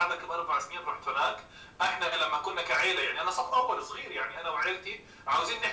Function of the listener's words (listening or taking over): listening